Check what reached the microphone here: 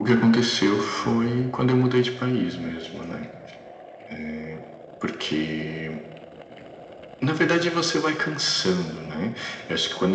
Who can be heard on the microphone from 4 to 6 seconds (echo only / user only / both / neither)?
echo only